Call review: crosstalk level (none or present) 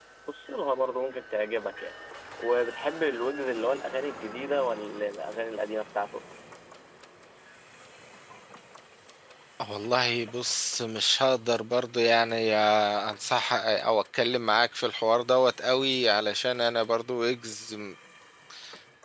none